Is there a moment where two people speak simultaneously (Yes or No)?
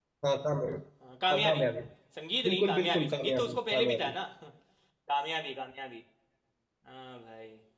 Yes